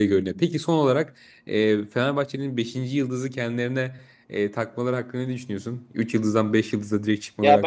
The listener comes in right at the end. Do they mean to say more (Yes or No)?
Yes